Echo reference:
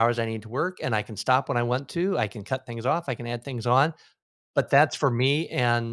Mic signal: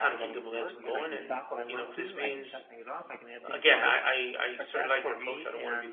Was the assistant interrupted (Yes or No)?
Yes